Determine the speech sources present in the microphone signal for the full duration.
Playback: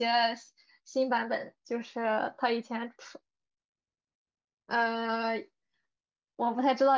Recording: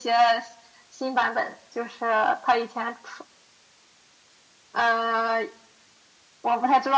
echo only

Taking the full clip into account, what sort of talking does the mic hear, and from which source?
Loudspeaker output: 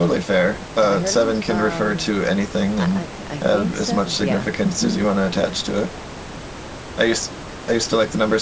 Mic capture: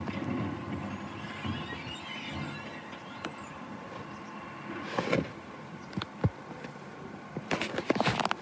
neither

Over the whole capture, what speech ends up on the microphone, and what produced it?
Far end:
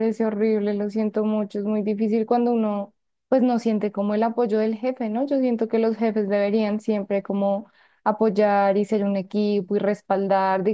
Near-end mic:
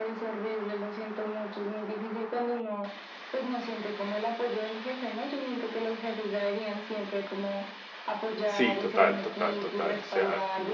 both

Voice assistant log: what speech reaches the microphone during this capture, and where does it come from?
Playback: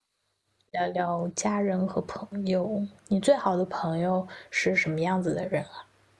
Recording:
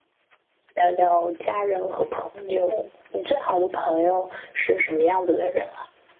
echo only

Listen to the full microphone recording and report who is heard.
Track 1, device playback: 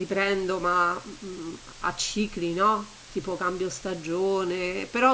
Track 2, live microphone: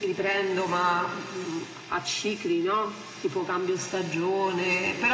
echo only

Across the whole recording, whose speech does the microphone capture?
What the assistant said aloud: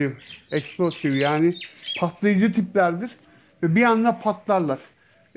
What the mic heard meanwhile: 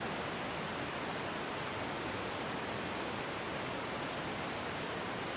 neither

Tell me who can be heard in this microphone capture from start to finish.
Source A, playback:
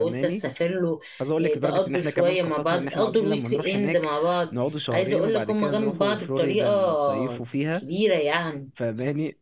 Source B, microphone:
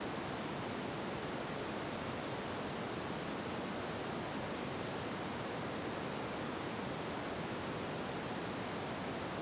neither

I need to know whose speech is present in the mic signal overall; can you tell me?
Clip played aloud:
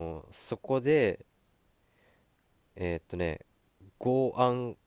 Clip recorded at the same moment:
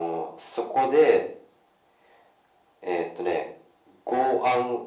echo only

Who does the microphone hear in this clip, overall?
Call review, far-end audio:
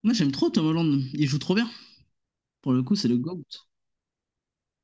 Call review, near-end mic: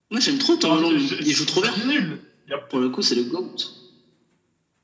both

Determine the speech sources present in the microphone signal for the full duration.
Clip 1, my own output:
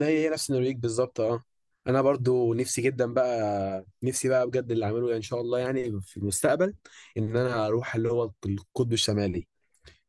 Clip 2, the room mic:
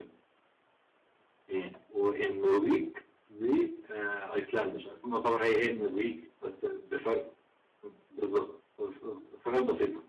user only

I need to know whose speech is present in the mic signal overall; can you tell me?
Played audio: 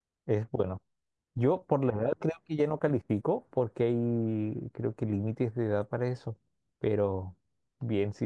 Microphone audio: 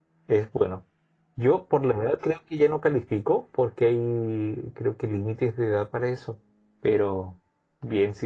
echo only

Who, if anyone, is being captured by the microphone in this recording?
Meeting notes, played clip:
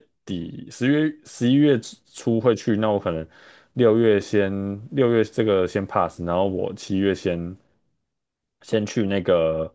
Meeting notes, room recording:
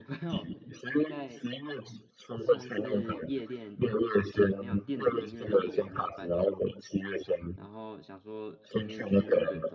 both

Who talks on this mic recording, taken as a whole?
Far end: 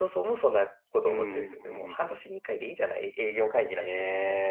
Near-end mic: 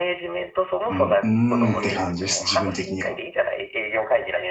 both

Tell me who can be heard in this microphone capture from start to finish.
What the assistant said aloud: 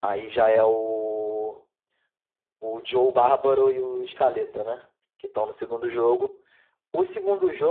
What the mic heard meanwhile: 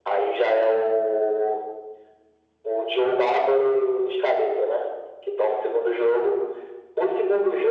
echo only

